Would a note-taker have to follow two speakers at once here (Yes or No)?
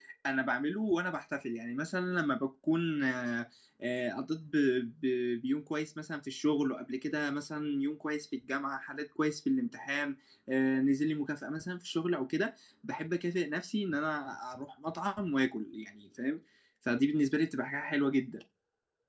No